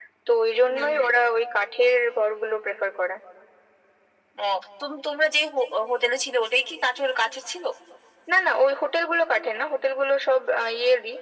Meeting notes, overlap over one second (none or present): none